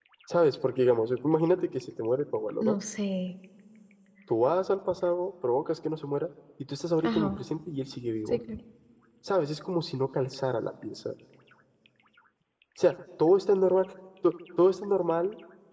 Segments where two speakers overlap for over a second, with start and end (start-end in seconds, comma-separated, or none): none